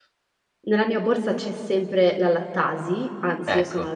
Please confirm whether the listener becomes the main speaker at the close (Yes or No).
No